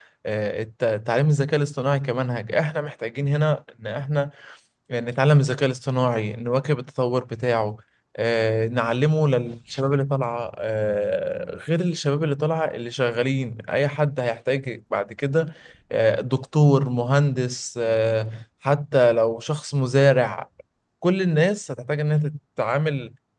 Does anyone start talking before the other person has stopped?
No

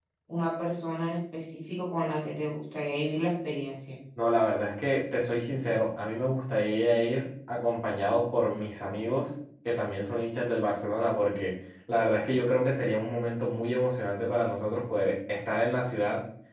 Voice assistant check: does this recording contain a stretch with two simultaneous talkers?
No

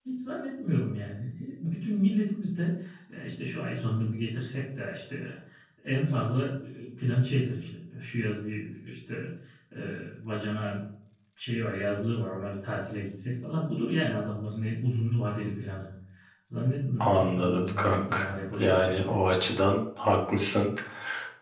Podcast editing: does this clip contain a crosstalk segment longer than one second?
Yes, from 17.0 s

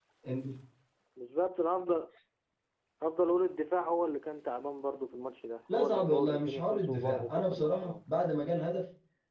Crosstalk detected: Yes, from 5.7 s

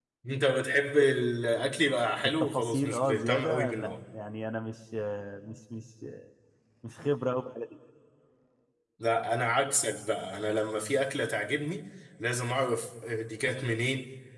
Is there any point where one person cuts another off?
Yes, from 2.2 s

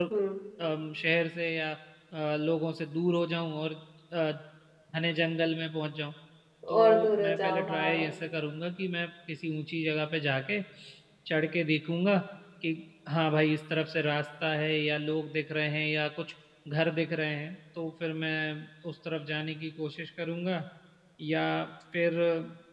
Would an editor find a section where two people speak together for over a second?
Yes, from 6.7 s

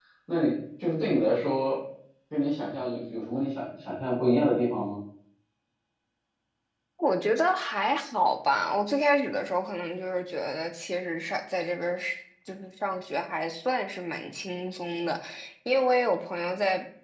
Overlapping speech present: No

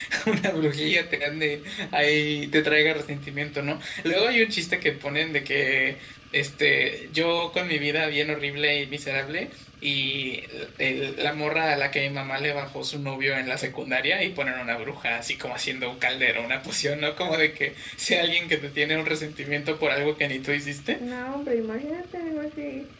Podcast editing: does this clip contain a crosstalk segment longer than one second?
No

